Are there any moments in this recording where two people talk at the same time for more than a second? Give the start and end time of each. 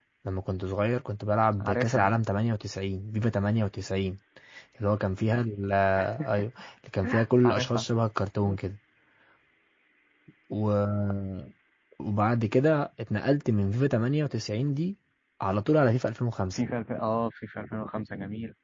none

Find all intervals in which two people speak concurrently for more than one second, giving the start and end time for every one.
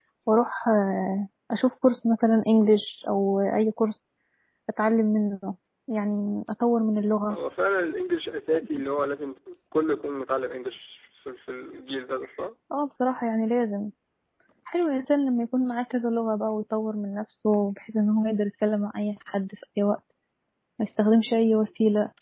none

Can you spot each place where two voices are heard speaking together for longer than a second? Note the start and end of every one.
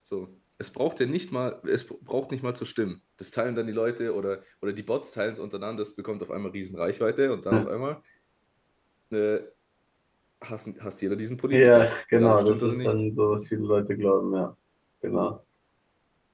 11.5-13.0

